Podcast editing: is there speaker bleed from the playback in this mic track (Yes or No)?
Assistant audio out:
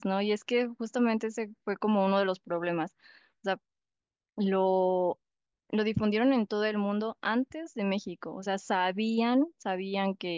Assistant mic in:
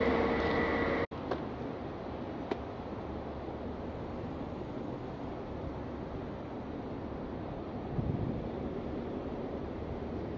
No